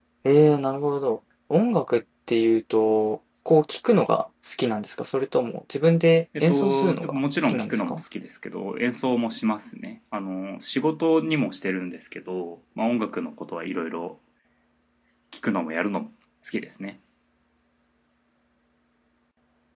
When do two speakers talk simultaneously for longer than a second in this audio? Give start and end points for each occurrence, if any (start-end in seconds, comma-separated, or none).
6.4-8.0